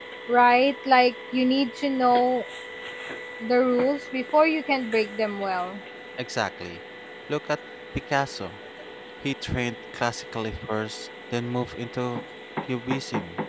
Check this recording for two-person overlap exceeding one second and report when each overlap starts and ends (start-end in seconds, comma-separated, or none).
none